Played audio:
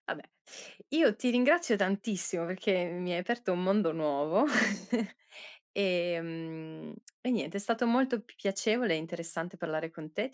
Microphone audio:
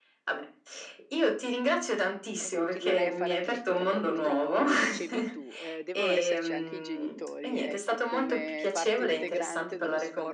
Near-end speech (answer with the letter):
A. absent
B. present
B